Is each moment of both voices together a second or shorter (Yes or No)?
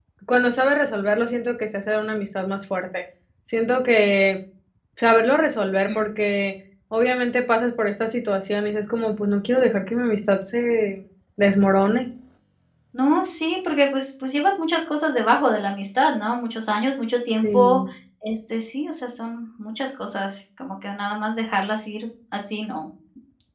Yes